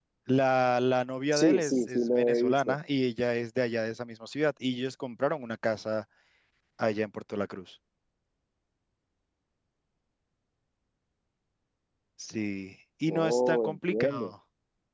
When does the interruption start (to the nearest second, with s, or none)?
1 s